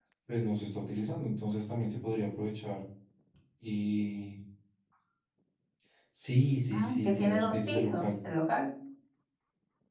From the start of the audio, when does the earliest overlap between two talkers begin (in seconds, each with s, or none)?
6.7 s